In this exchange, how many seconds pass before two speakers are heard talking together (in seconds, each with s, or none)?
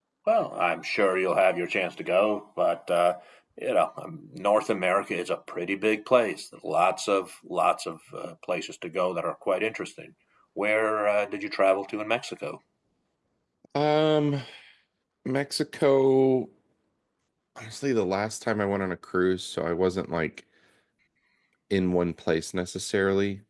none